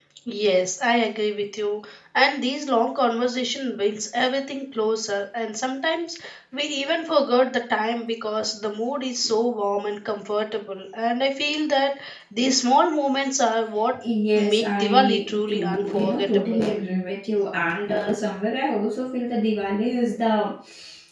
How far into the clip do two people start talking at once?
14.3 s

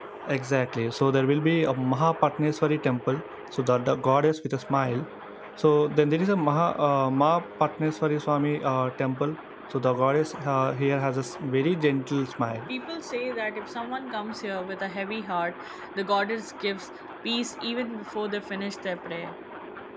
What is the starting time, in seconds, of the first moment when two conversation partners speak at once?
none

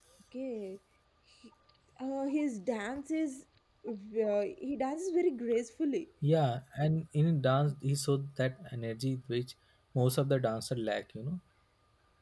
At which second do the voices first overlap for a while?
none

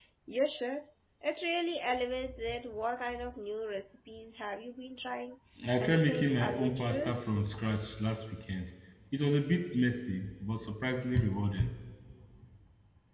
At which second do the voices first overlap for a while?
5.8 s

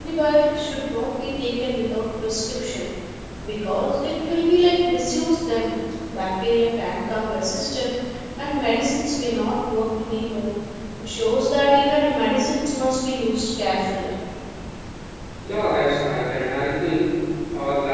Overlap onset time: none

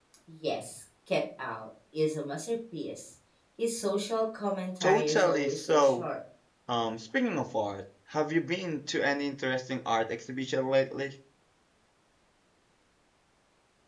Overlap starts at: 4.8 s

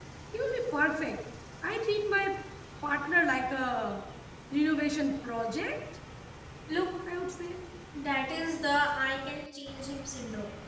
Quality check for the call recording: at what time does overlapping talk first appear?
none

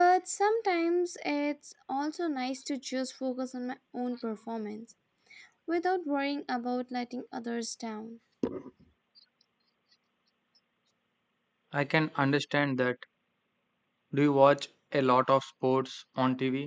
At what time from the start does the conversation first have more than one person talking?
none

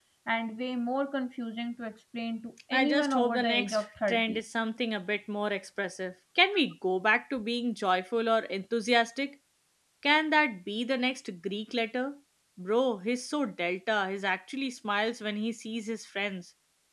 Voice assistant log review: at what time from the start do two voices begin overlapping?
2.7 s

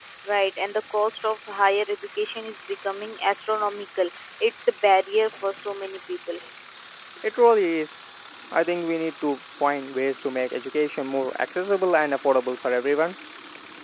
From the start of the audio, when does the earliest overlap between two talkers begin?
none

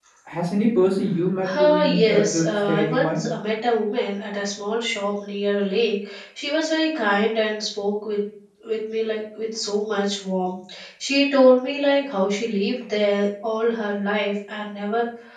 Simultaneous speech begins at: 1.4 s

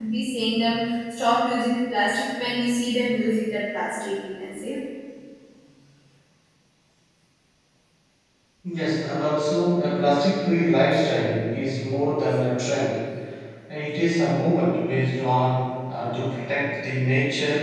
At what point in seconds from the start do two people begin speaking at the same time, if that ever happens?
none

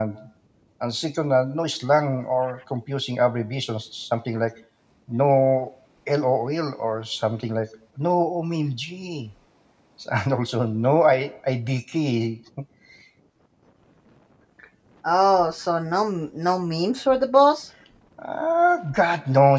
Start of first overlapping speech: none

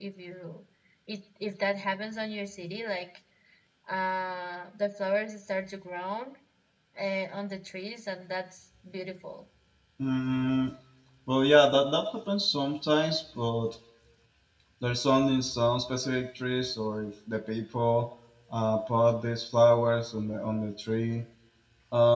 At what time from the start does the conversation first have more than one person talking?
none

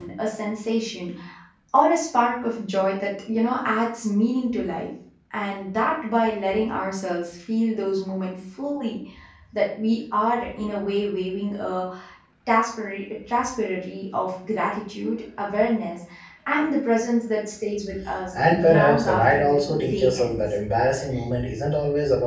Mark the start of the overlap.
18.3 s

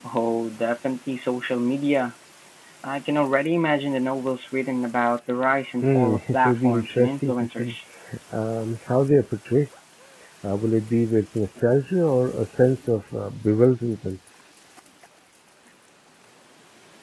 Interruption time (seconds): 5.8 s

